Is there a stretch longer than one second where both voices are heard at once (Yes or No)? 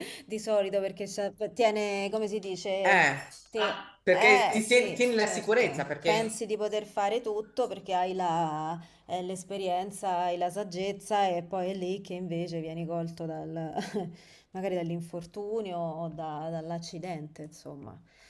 Yes